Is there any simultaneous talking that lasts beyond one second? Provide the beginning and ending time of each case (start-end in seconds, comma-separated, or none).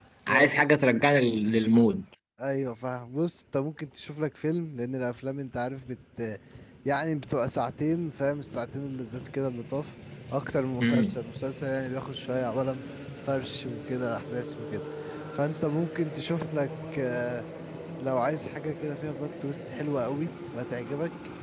none